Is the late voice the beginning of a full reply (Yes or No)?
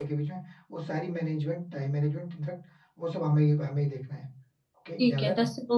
Yes